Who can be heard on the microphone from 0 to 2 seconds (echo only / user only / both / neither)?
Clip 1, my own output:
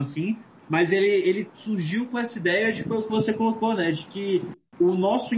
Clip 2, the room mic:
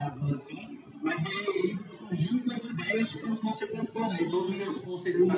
echo only